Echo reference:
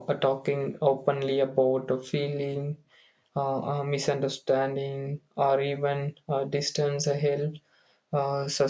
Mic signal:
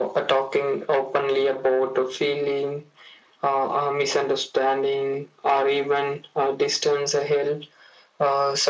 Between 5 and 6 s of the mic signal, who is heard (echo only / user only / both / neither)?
echo only